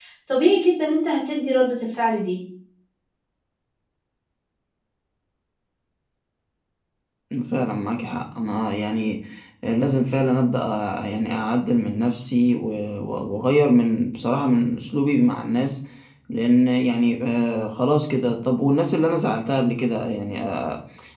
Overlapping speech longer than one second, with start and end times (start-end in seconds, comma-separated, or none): none